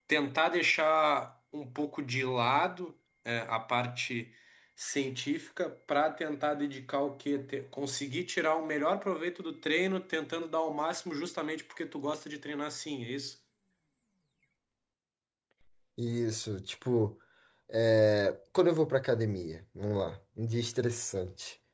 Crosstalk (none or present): none